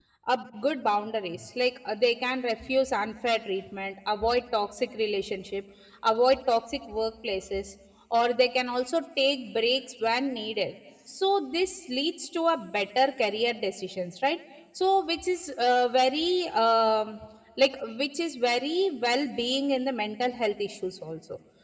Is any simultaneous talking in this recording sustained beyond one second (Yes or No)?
No